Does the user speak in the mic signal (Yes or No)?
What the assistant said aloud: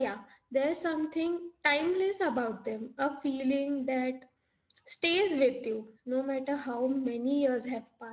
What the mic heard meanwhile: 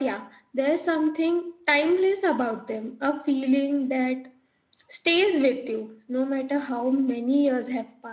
No